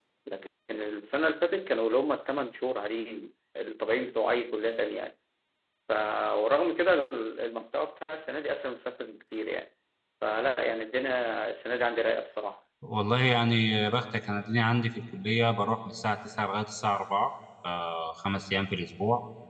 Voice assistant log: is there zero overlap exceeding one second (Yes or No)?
Yes